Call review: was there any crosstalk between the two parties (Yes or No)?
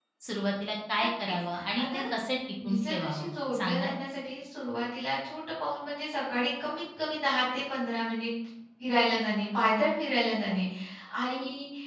Yes